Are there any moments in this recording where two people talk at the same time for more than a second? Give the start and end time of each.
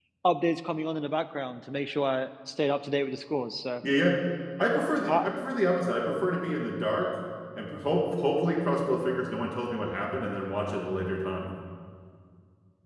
none

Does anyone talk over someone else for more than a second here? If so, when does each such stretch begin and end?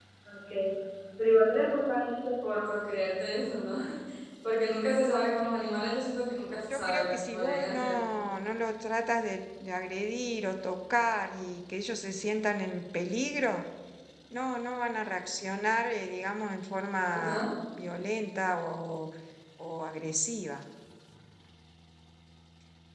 6.7-7.9

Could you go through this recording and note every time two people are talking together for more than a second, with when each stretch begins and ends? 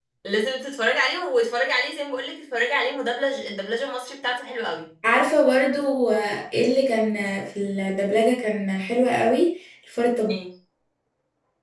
none

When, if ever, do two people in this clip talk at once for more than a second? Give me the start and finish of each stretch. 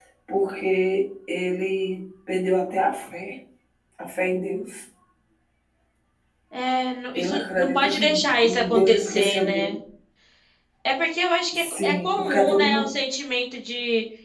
7.2-9.7, 11.5-12.9

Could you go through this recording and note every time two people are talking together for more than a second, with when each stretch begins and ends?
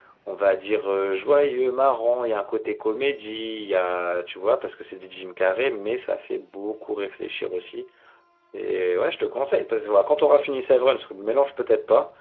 none

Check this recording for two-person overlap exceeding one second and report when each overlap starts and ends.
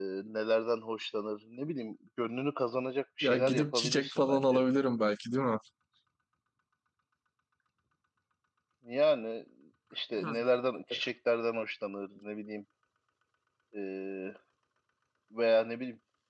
3.2-4.6

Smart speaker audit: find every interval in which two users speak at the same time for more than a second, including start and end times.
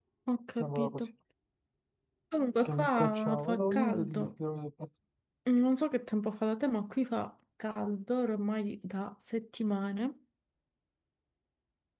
2.6-4.2

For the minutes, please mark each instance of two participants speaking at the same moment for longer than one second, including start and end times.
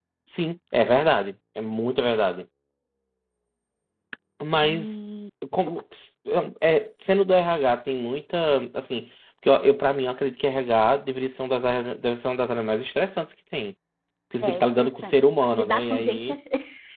14.4-16.3

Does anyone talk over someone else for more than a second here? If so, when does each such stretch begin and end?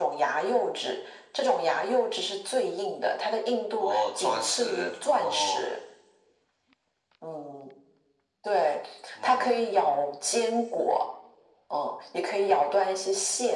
3.8-5.6

